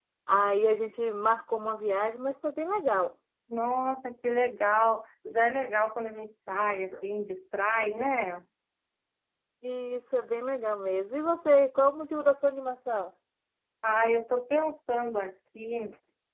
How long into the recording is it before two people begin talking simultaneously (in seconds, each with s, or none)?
none